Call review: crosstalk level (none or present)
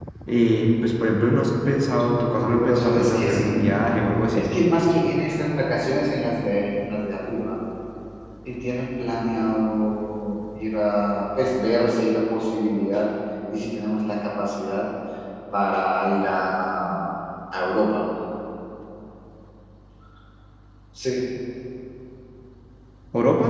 present